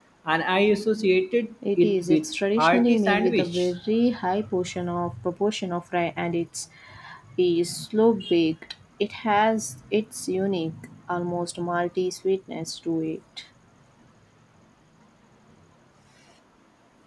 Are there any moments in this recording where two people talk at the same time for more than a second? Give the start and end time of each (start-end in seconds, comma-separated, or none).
1.8-3.7